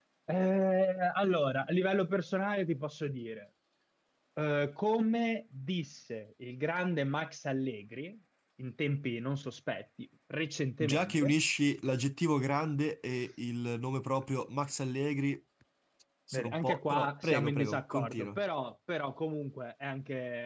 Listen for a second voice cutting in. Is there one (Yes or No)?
Yes